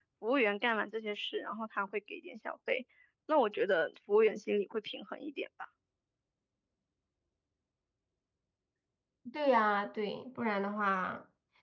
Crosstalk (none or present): none